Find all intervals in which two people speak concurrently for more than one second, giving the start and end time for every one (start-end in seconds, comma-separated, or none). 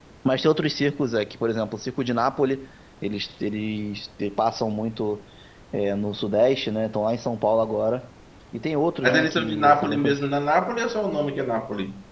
9.0-10.2